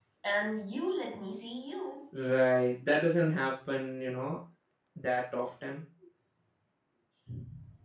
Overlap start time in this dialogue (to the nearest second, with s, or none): none